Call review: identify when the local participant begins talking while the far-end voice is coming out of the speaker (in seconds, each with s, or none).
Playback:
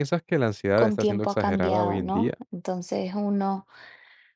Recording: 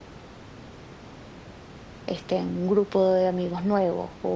2.1 s